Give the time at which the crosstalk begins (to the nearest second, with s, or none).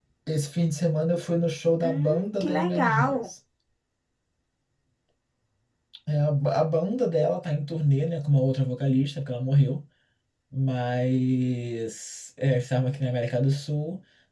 2 s